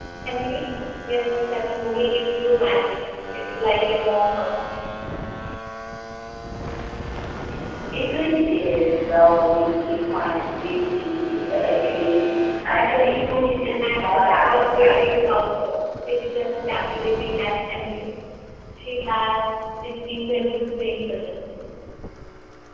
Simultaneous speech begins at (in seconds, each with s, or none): 13.8 s